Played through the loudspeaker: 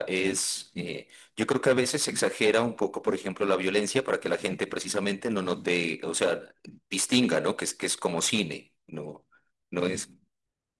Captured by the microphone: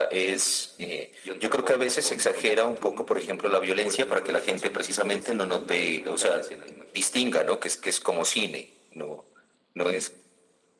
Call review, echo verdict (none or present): present